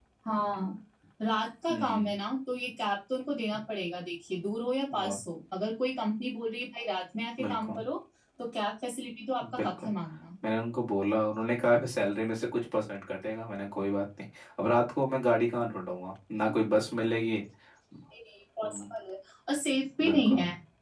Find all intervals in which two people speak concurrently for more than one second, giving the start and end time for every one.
none

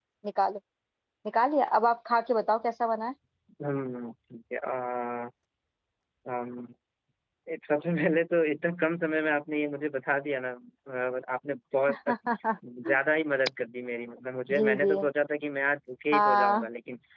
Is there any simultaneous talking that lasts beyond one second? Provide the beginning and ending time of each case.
none

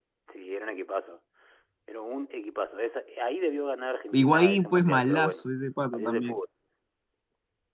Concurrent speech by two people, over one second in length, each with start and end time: 4.1-5.4

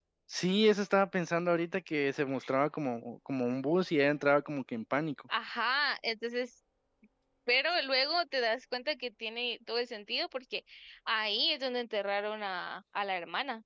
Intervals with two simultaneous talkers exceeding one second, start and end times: none

